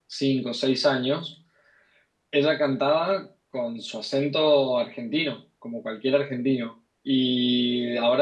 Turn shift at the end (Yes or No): No